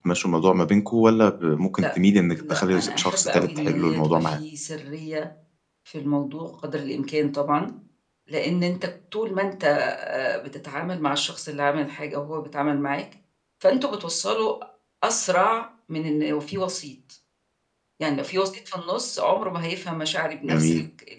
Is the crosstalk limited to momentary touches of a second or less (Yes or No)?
No